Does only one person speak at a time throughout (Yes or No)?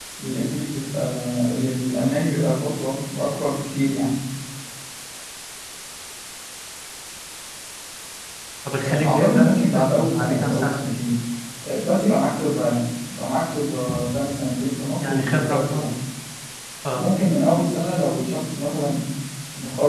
No